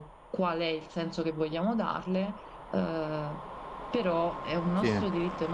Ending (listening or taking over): listening